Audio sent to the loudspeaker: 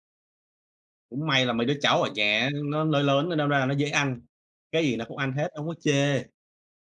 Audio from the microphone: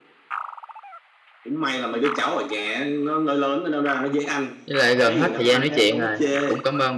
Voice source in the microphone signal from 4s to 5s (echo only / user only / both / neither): both